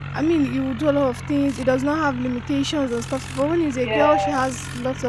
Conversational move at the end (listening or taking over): listening